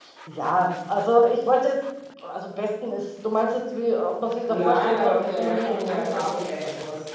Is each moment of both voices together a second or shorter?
No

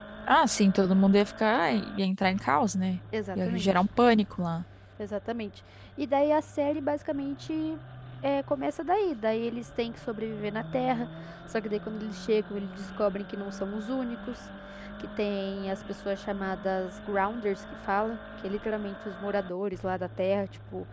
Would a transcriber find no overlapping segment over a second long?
Yes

